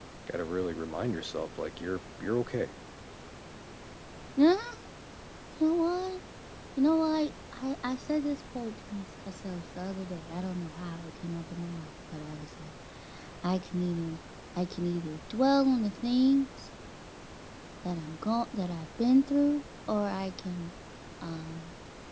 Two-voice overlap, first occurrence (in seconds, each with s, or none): none